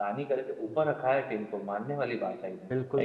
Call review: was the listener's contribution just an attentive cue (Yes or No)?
No